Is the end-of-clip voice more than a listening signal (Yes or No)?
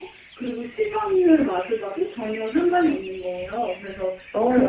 No